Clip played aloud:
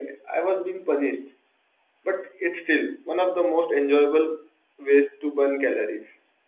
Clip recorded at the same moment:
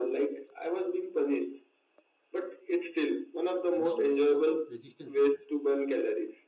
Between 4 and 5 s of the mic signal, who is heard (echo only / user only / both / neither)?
both